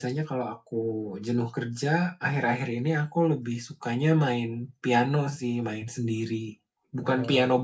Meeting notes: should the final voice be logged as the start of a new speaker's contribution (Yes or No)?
No